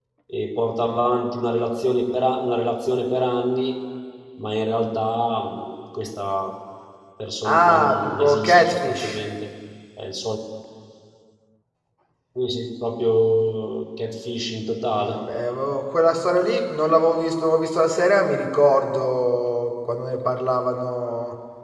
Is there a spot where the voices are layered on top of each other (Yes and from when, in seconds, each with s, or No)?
Yes, from 7.4 s